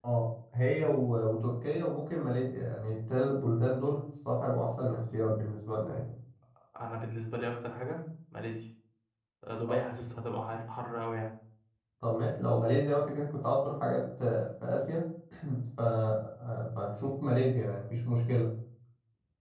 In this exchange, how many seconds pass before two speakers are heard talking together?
none

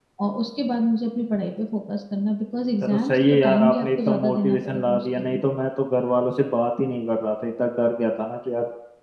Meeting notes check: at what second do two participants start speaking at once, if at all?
3 s

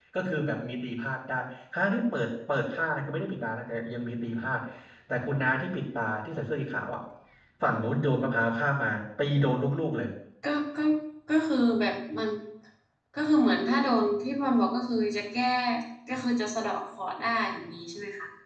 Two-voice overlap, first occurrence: none

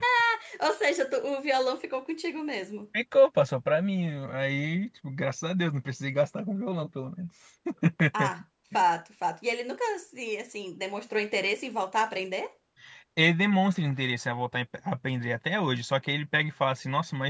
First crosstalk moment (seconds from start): none

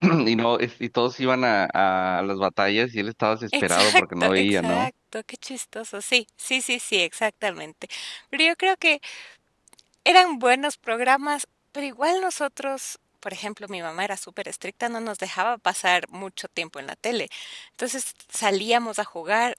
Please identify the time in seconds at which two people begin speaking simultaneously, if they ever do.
4 s

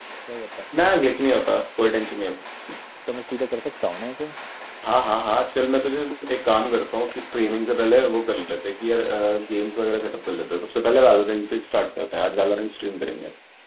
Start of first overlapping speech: none

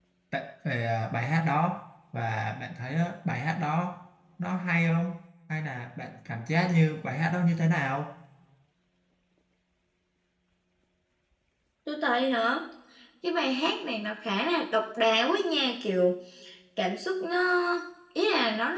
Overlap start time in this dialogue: none

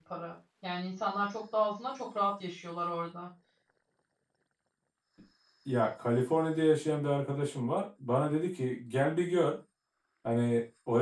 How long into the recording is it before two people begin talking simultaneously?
none

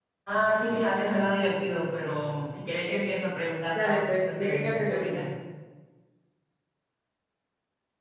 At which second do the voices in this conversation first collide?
4 s

